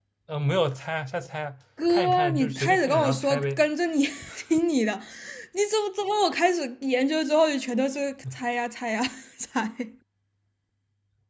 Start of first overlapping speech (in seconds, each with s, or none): 1.8 s